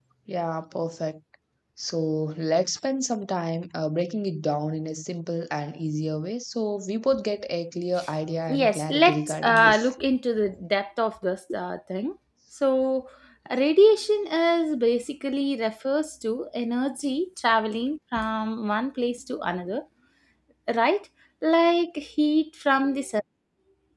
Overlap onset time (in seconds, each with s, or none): 8.5 s